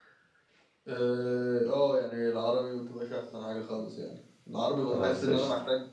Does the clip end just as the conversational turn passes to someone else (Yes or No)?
No